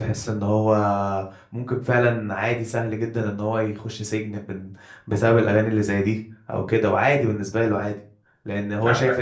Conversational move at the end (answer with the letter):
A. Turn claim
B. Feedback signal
B